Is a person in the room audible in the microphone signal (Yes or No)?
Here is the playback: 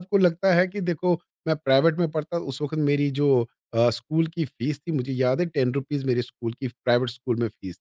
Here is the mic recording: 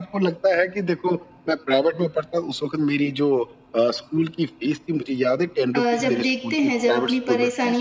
Yes